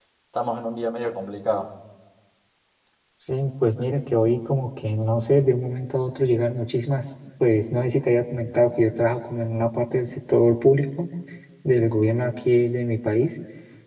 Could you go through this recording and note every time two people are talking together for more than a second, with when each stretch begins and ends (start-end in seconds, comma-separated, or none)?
none